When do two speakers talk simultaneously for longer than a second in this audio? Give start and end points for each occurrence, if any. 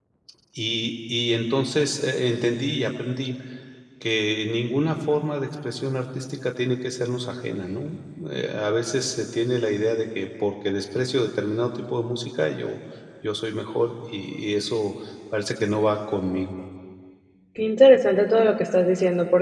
none

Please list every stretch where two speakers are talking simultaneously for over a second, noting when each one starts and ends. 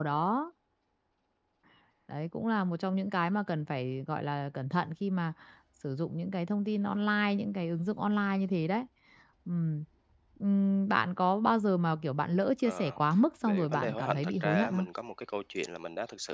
13.5-14.8

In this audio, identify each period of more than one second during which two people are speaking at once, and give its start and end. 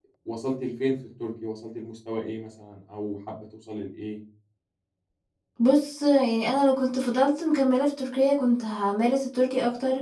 none

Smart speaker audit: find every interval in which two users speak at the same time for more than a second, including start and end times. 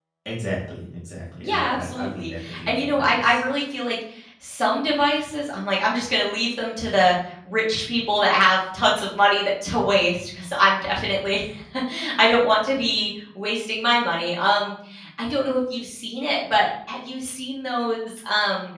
1.4-3.4

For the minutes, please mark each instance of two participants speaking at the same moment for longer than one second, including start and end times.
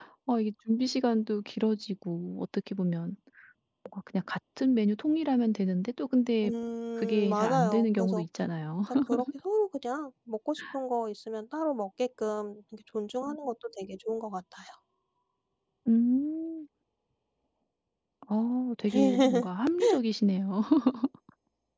7.0-8.2

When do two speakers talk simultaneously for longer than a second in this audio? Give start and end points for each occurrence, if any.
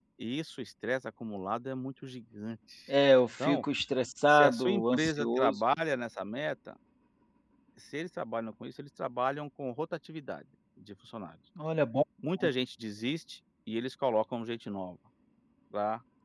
4.3-5.6

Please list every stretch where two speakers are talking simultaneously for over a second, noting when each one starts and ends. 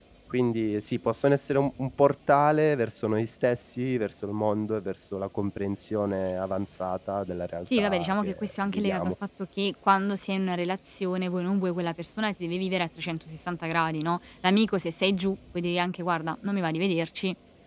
7.8-9.1

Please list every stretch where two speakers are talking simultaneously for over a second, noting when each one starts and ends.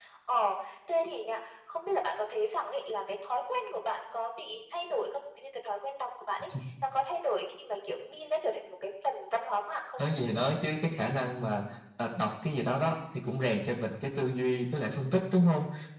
none

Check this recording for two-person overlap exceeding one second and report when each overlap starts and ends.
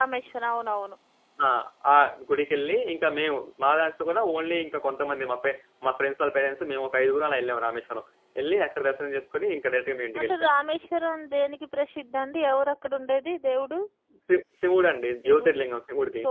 none

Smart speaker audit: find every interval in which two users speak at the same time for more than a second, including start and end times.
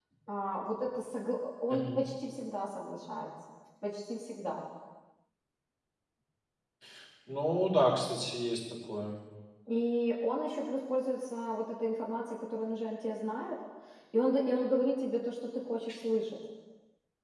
none

